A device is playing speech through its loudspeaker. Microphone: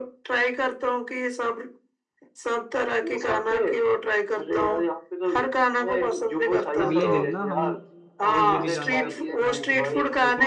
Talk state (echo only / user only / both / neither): both